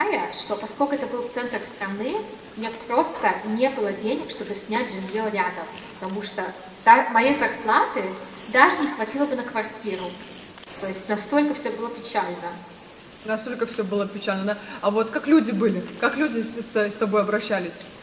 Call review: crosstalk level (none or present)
none